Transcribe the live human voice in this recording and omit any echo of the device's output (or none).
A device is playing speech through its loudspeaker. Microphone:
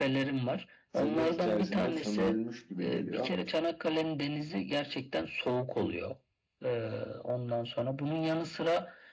tırnak içerisinde sömürülmüş gibi geliyor.